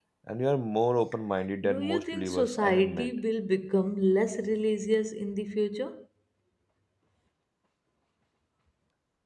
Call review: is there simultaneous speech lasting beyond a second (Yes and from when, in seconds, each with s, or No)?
Yes, from 1.6 s